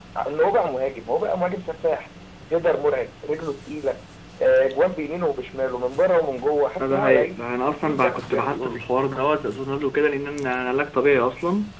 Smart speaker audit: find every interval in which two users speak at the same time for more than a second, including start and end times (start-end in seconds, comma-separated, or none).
6.8-8.8